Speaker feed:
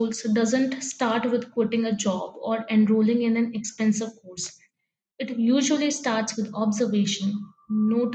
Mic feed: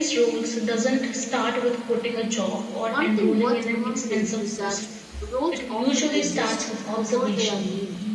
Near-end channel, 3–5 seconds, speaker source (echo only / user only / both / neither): both